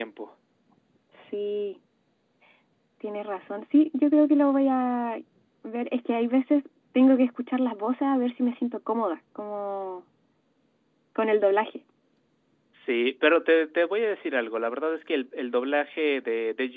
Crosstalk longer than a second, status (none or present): none